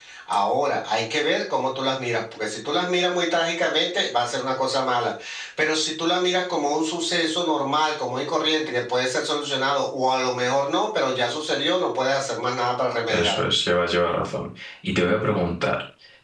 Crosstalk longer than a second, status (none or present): none